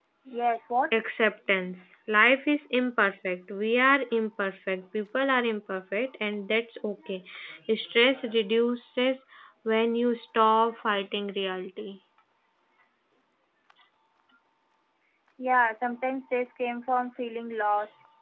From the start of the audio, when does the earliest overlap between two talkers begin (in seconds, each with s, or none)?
none